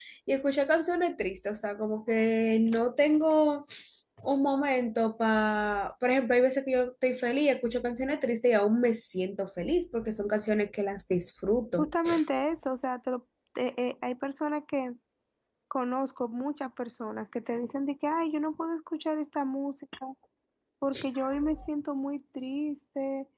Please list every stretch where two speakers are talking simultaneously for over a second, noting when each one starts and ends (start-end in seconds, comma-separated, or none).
none